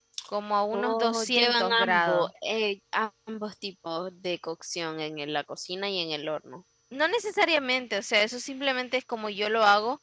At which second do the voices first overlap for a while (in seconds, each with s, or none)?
0.7 s